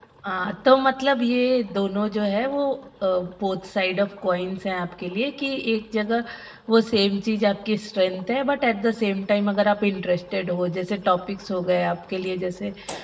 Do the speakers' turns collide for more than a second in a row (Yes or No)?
No